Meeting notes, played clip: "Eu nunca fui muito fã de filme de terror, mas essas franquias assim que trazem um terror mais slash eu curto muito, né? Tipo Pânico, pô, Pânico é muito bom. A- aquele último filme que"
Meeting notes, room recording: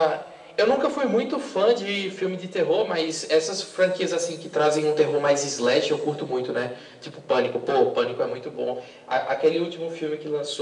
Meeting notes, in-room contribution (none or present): none